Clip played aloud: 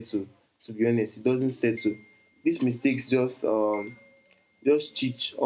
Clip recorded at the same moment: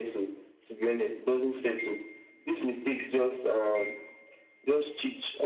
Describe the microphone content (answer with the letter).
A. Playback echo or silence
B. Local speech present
A